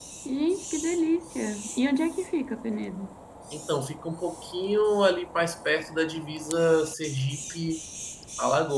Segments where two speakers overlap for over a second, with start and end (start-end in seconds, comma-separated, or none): none